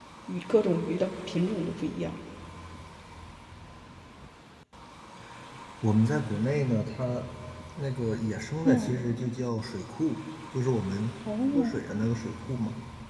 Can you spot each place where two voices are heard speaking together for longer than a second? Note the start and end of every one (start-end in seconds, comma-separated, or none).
none